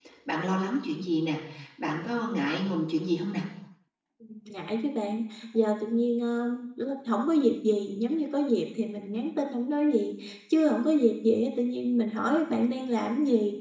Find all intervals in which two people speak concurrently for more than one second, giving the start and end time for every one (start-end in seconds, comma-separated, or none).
none